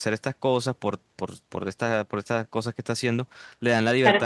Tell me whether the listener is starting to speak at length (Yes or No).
Yes